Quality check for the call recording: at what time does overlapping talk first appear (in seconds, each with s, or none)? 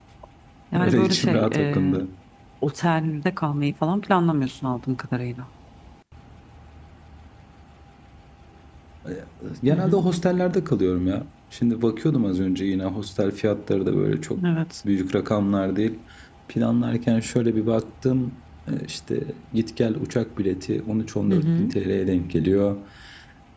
0.8 s